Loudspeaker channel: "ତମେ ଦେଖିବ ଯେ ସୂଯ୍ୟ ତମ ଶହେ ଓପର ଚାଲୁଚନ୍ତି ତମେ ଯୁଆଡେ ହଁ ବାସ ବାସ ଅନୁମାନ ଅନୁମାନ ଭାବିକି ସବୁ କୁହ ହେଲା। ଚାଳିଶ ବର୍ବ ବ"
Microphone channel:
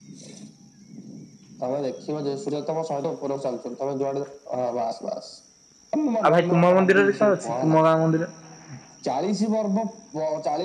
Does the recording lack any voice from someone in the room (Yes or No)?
No